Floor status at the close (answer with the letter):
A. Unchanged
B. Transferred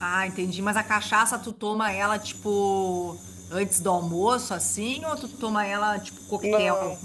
B